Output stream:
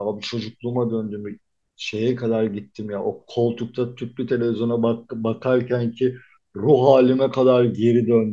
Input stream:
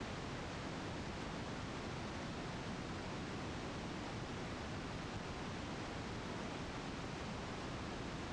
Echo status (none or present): none